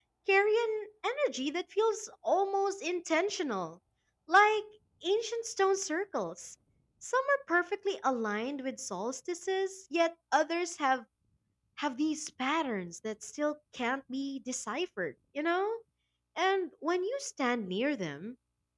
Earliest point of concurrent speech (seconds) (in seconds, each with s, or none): none